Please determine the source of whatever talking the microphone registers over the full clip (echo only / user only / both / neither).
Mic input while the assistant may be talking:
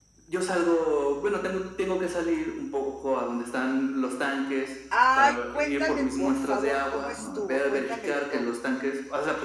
both